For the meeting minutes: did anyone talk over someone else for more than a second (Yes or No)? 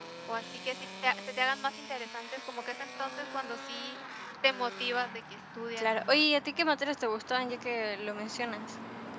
No